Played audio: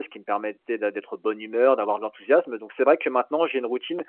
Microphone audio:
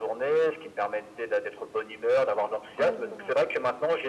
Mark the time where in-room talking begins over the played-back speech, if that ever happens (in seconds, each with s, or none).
2.8 s